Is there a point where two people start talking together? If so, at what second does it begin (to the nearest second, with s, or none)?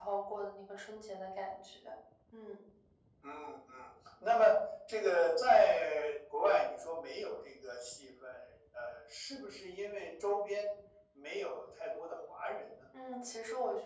none